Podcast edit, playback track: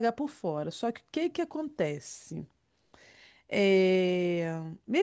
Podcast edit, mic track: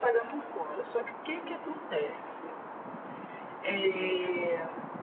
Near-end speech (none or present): none